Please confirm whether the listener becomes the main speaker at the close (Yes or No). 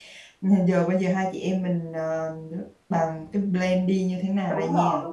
Yes